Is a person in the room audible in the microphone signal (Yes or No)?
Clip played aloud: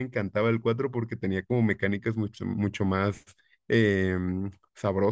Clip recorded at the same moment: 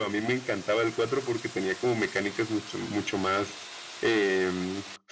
No